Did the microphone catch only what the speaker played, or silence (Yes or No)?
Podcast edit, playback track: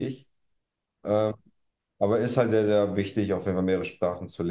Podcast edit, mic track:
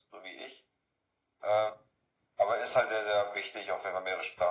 Yes